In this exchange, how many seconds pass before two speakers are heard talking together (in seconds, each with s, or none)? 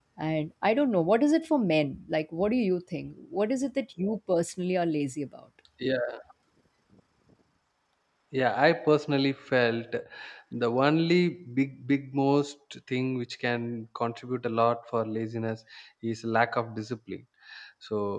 none